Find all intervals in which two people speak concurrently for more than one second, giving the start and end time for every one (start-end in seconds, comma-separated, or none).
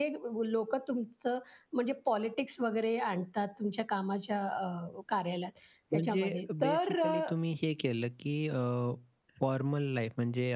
5.9-7.2